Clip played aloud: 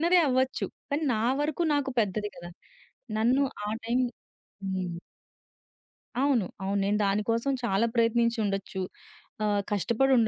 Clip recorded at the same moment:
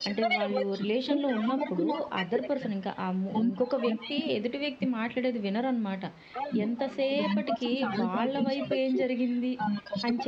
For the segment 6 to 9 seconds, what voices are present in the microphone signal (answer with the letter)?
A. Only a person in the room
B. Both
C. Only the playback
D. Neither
B